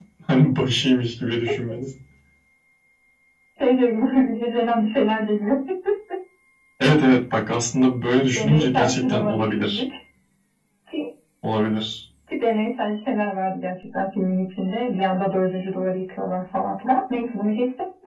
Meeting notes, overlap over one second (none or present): present